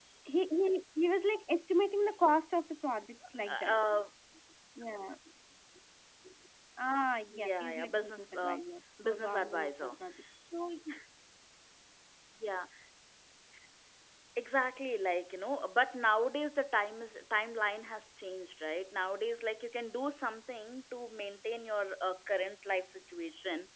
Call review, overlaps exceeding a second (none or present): present